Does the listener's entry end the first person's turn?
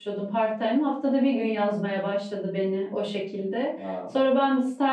No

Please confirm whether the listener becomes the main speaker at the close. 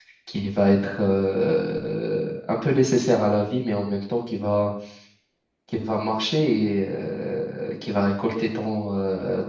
No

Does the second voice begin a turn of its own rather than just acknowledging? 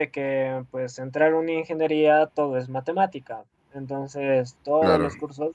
No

